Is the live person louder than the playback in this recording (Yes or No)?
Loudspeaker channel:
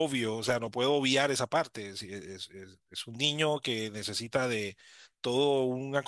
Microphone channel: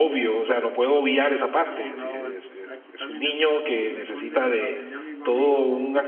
No